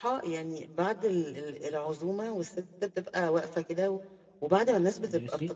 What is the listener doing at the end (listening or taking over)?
listening